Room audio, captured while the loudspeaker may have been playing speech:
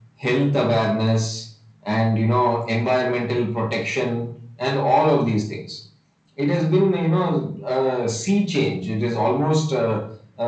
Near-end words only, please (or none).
none